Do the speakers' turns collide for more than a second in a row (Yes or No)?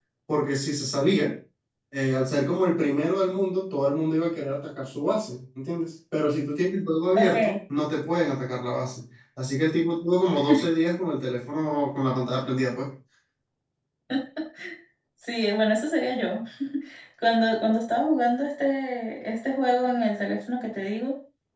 No